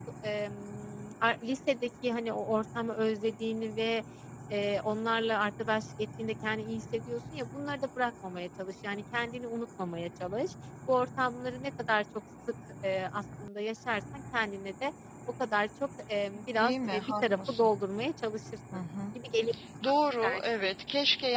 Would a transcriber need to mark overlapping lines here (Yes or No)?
Yes